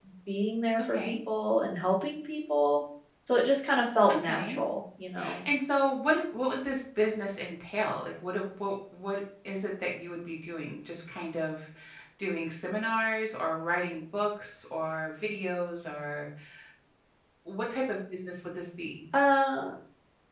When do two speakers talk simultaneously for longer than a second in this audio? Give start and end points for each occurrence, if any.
none

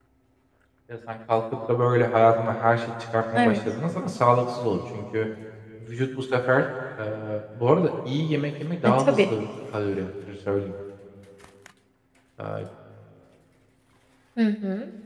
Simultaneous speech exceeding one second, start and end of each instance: none

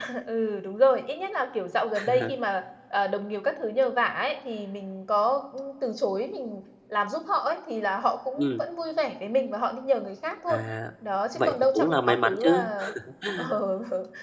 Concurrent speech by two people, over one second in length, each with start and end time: 11.4-12.6

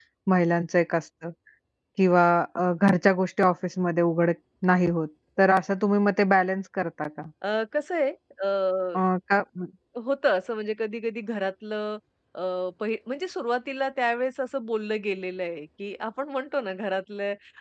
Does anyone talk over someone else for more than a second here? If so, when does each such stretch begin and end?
none

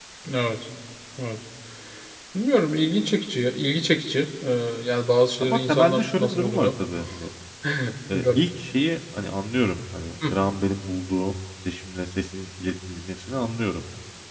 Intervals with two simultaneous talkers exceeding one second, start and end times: 5.4-6.7

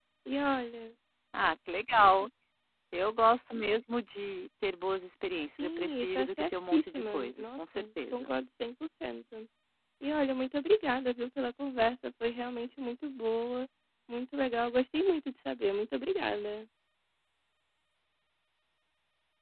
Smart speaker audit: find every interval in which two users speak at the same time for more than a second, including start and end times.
5.6-8.3

